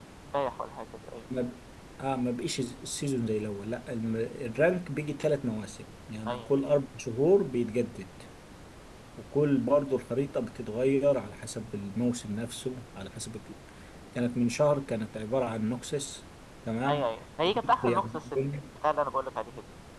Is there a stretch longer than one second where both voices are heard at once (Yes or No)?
Yes